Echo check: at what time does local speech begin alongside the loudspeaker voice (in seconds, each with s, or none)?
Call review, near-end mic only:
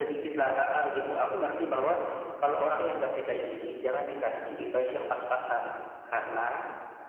none